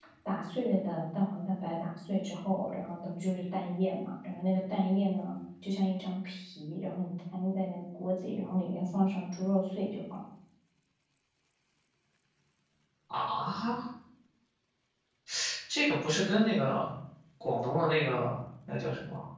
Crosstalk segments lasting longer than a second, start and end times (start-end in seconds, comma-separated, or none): none